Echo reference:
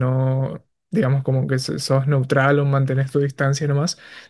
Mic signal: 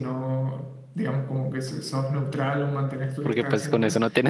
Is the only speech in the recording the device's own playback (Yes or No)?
No